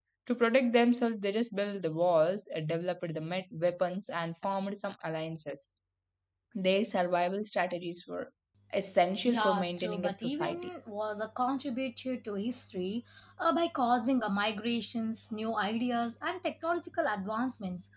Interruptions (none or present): present